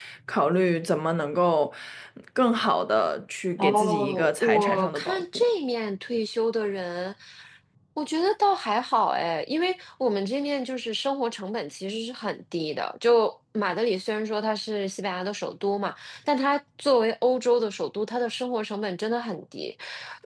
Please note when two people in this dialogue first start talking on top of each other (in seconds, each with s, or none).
3.6 s